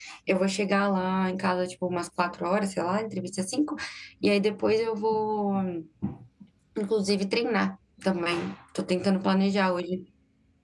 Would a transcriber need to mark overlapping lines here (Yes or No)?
No